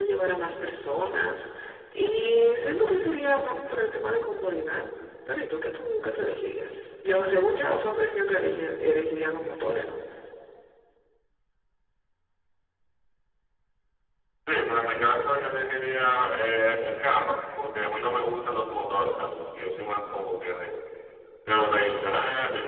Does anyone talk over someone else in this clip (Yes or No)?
No